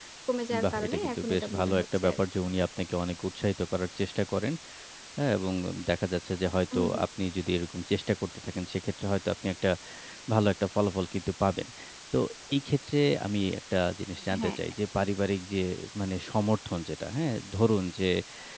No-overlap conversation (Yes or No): No